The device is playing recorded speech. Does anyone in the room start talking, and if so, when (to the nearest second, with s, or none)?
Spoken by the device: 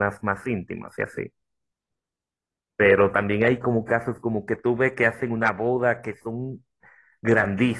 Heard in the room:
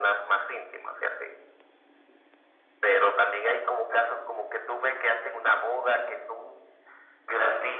none